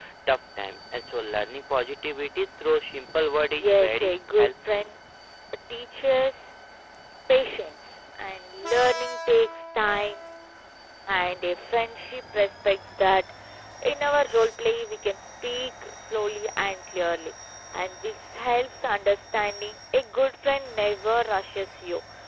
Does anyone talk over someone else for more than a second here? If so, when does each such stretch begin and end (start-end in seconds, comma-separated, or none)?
3.4-4.9